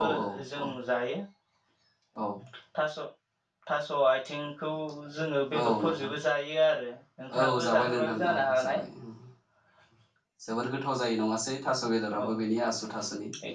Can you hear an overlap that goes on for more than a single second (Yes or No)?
Yes